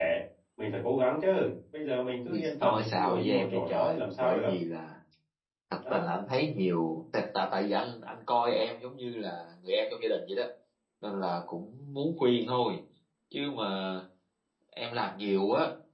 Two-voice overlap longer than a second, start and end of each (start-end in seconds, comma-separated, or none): 2.3-4.5